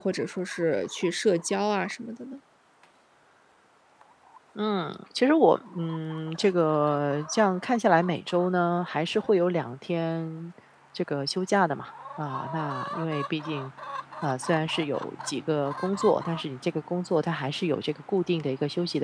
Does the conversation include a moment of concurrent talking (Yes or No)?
No